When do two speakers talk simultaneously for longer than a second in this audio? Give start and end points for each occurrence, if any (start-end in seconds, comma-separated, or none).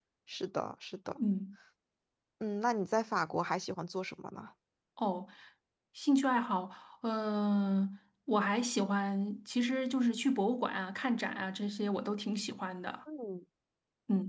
none